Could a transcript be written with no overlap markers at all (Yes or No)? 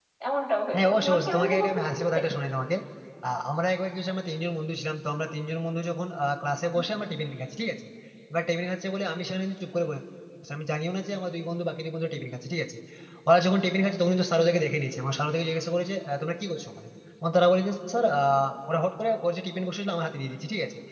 No